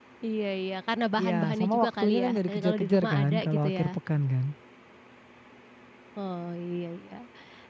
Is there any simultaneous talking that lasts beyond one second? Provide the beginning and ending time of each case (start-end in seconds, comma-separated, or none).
1.2-4.0